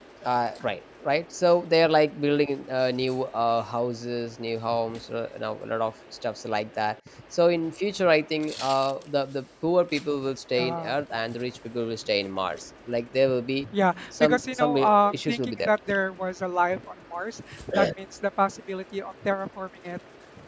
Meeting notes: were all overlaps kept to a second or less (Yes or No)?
No